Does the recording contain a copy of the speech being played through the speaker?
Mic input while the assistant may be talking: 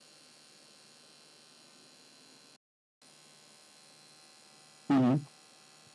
No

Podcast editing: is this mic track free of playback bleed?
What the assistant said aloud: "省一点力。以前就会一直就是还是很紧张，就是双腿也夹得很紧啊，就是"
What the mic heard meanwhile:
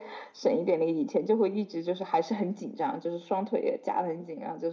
No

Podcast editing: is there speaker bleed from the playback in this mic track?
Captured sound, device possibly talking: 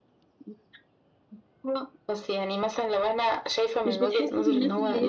Yes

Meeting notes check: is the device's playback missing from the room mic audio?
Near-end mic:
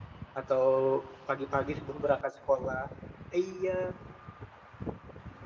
Yes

